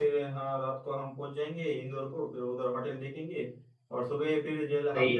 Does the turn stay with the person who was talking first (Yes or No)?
Yes